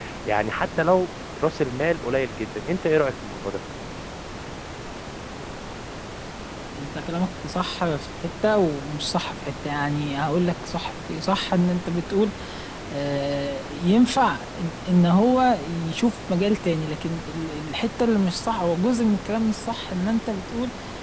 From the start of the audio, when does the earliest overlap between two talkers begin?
none

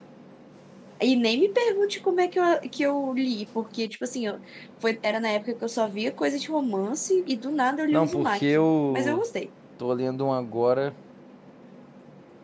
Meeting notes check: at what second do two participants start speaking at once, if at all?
7.9 s

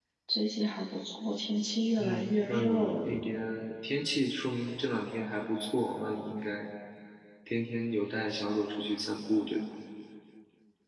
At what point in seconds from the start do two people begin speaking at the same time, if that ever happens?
2.0 s

